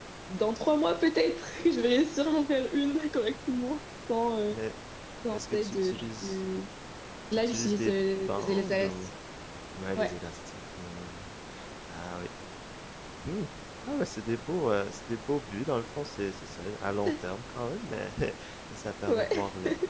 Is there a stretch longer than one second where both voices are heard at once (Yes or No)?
Yes